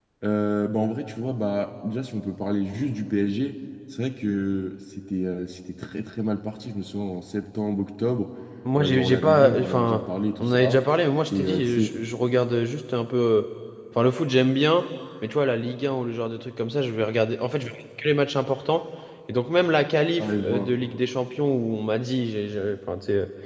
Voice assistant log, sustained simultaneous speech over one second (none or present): present